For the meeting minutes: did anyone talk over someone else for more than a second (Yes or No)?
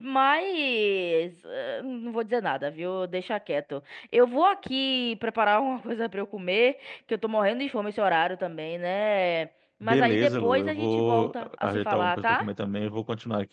Yes